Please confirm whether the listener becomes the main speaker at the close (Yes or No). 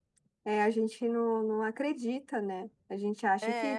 No